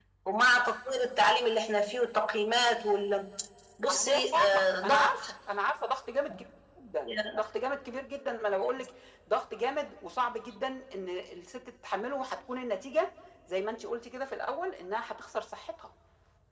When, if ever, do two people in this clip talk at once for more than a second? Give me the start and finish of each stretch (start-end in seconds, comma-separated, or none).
3.9-5.3